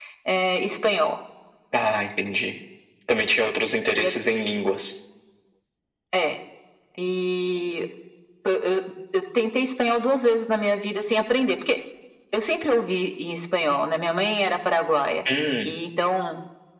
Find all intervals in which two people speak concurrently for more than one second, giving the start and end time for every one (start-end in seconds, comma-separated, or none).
none